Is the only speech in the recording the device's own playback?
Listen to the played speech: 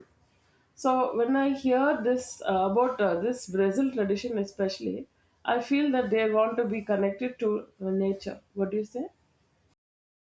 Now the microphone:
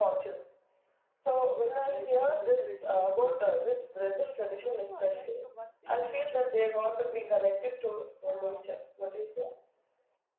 No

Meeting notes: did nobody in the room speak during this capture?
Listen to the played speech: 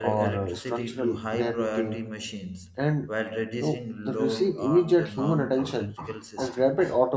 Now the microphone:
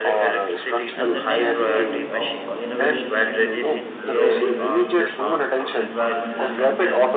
No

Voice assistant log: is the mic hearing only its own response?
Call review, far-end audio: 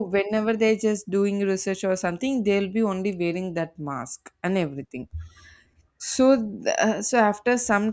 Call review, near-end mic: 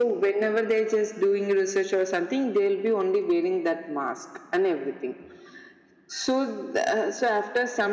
Yes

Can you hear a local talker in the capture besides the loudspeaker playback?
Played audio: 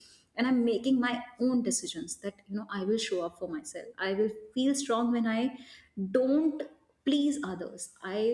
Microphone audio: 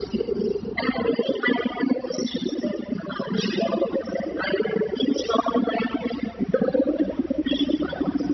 No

